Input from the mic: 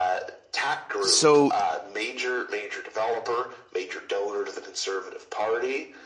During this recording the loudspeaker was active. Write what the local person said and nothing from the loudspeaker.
So

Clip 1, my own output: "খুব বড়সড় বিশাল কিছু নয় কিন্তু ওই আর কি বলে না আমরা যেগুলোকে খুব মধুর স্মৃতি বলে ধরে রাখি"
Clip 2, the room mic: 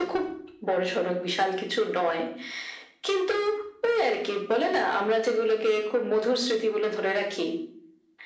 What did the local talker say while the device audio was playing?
none

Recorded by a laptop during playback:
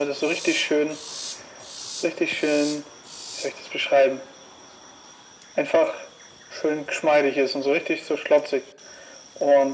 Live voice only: none

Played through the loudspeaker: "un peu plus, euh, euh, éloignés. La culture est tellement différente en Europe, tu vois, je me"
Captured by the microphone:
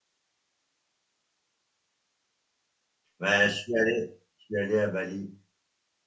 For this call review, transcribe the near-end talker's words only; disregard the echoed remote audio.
Bah, je suis allé, je suis allé à Bali.

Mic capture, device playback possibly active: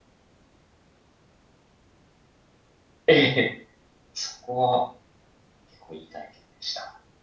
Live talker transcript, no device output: ええ、そこは結構いい体験でした。

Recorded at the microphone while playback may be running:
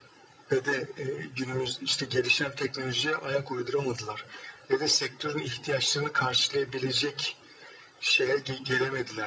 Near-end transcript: none

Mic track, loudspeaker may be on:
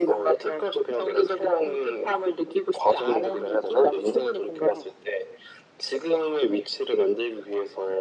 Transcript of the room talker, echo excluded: none

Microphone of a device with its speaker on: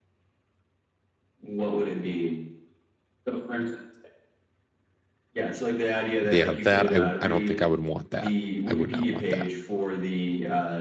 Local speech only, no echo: Yeah, that I I don't think I would want that. I would not want that.

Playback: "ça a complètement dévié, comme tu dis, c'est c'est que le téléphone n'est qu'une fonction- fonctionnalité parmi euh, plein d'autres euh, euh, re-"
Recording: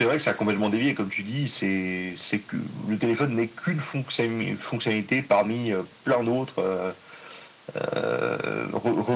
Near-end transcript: none

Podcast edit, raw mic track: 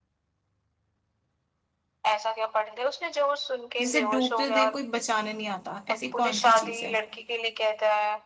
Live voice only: जिसे डूबते देख कोई बचाने नहीं आता ऐसी कौन सी चीज है

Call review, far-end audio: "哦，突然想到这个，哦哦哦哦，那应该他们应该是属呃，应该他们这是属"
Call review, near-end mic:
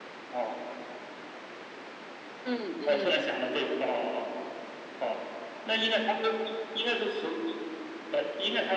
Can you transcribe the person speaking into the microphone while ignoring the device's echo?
嗯嗯

